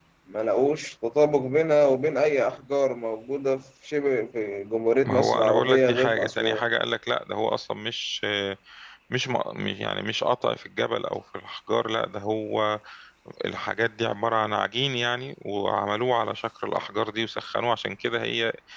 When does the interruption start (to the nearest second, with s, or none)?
5 s